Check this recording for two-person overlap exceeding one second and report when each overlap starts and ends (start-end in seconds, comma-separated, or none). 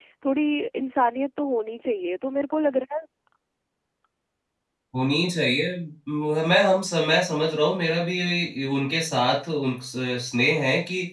none